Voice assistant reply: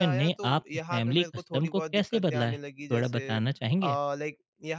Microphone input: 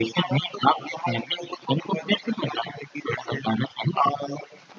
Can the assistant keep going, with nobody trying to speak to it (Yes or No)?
Yes